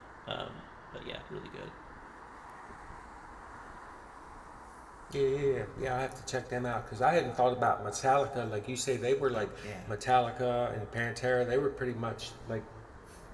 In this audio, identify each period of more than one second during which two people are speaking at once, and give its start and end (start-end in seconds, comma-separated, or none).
none